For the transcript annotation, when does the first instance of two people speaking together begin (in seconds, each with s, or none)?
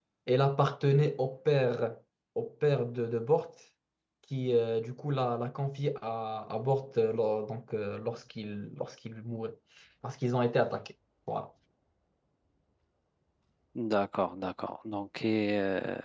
none